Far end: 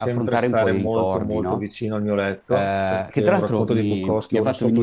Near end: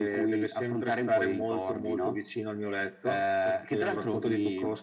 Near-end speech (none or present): none